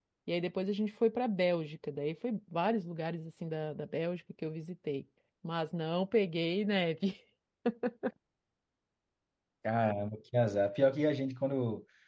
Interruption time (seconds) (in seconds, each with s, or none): none